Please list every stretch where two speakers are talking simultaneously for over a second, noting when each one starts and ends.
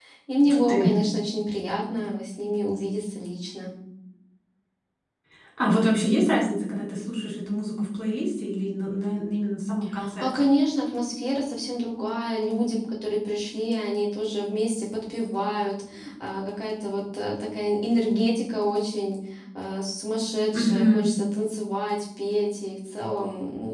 none

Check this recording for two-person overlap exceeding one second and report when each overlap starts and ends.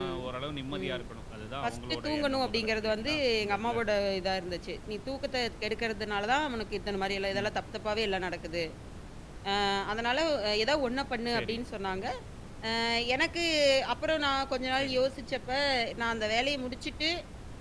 1.6-3.8

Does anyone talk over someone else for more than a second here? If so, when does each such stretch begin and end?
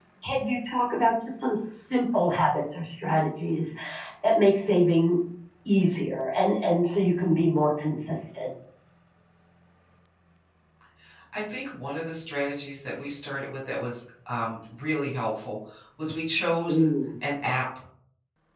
none

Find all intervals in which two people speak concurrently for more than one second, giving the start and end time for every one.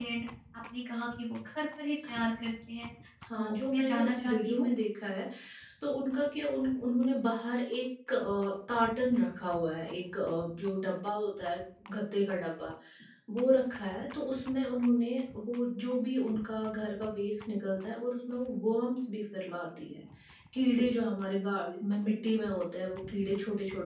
3.3-4.7

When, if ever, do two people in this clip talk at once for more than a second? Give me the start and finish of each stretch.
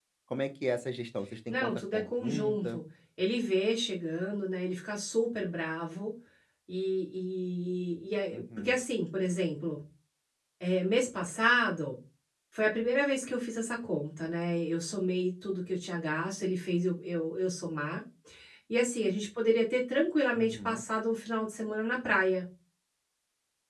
1.5-2.8

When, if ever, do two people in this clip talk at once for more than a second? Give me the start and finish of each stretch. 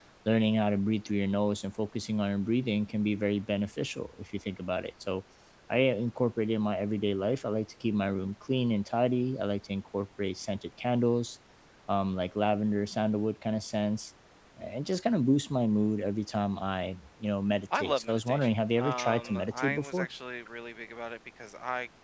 17.7-20.1

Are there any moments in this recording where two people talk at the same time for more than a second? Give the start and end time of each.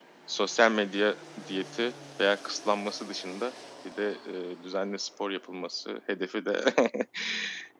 none

